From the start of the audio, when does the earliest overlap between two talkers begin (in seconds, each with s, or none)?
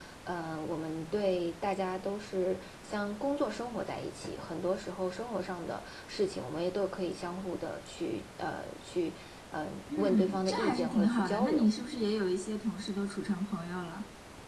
9.9 s